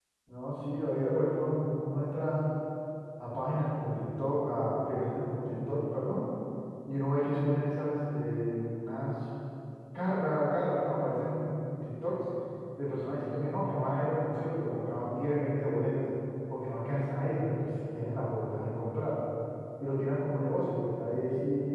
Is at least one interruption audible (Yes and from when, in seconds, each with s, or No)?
No